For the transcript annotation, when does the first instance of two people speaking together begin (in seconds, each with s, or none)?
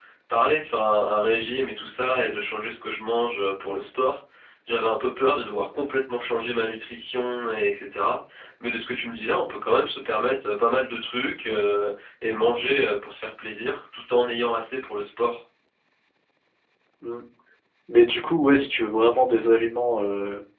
none